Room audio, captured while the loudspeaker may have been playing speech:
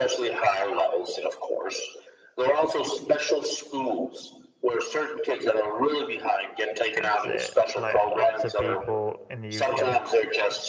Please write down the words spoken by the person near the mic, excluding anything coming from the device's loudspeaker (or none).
That's it. Like lots of people in the UK,